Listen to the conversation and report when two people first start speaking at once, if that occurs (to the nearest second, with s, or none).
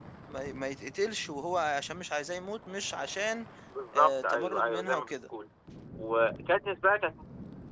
4 s